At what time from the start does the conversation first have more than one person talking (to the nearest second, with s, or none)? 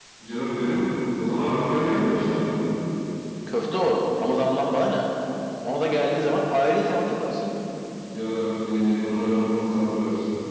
none